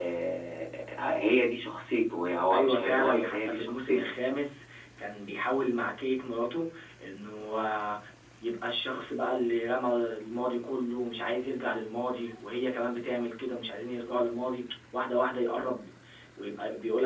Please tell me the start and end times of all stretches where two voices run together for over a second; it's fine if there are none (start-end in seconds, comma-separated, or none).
2.5-4.1